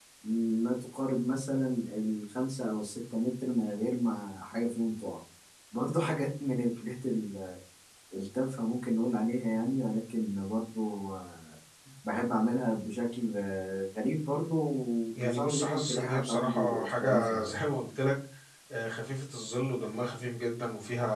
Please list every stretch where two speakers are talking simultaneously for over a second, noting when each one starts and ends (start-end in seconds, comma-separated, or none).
15.2-17.5